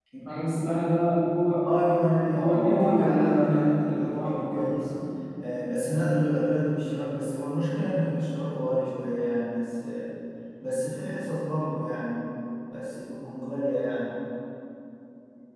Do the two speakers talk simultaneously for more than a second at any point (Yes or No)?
Yes